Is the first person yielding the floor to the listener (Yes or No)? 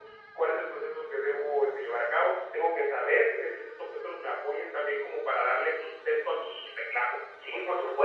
Yes